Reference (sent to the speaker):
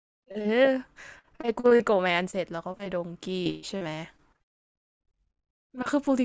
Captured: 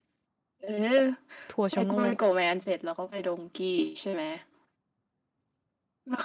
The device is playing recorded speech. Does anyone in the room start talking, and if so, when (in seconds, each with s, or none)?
1.5 s